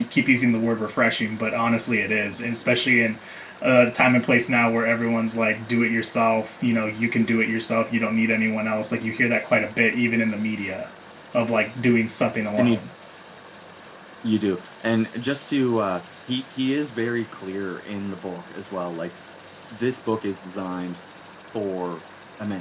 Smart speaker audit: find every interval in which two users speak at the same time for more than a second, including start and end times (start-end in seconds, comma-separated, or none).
none